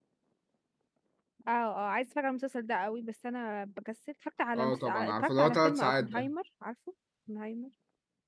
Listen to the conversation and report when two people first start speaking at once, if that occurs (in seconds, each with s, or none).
4.5 s